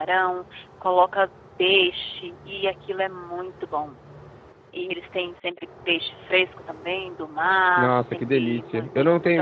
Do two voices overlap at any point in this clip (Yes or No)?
Yes